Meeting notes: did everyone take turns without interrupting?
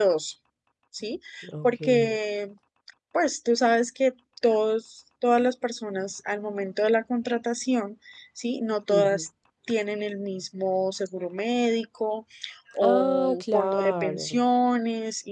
No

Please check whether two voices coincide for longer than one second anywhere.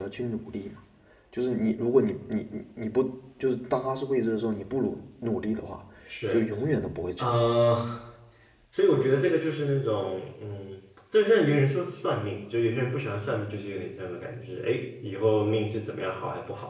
No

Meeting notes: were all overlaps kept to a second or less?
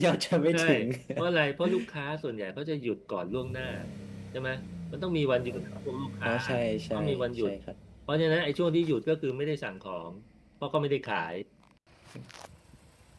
Yes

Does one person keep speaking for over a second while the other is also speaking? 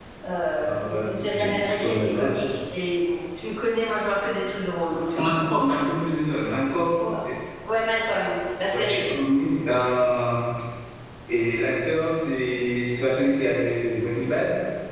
Yes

